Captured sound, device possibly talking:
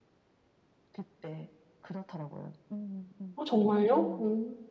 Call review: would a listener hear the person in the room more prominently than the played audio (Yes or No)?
Yes